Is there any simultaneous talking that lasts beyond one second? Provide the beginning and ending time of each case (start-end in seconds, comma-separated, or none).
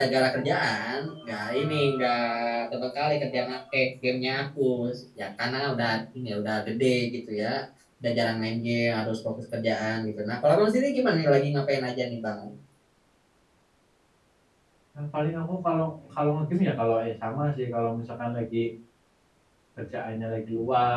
none